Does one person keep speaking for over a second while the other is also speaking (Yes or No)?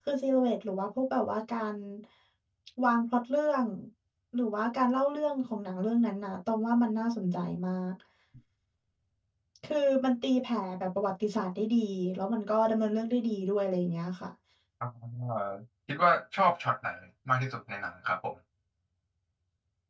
No